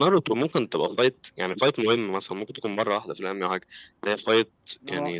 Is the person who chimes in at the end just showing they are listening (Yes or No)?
Yes